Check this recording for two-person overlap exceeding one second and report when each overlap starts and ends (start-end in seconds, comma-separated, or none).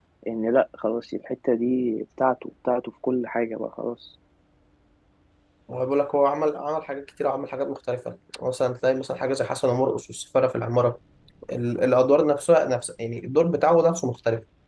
none